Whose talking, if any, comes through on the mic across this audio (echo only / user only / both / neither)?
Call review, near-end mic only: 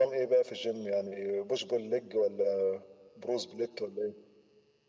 echo only